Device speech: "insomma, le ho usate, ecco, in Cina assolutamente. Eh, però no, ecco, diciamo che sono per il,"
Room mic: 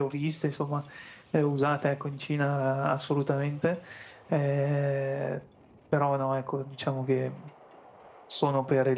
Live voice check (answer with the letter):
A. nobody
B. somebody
A